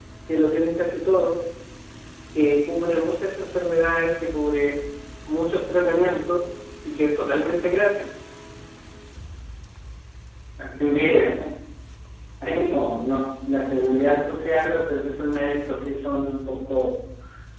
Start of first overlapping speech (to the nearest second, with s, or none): none